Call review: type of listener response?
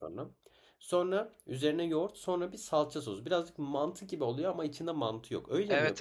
taking over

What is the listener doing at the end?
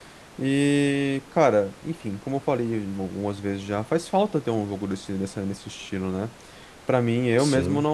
listening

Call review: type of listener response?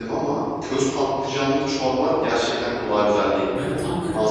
taking over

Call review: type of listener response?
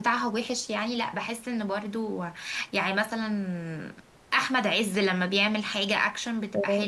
taking over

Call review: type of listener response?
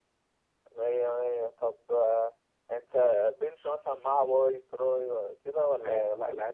taking over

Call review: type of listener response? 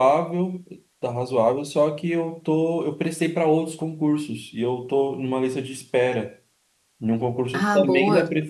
listening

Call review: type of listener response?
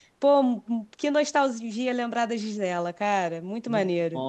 taking over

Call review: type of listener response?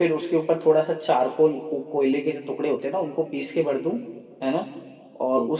listening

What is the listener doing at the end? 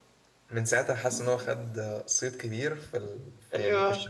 listening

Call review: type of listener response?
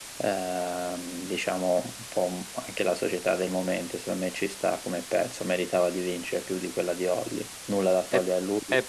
taking over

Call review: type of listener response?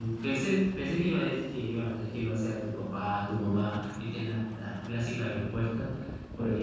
listening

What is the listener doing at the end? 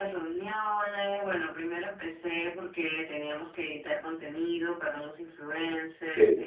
listening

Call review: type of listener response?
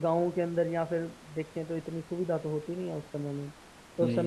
listening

